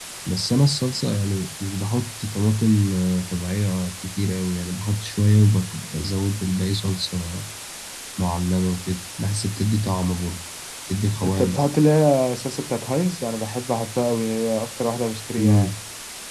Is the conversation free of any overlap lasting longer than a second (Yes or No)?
Yes